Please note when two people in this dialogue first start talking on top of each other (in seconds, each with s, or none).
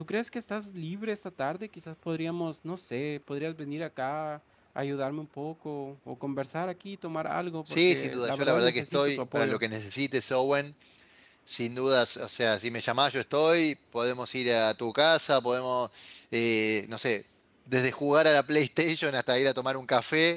7.7 s